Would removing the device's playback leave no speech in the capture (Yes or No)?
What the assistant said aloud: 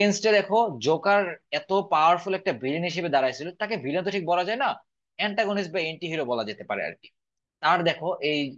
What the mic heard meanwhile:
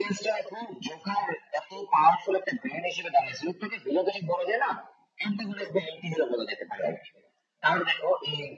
Yes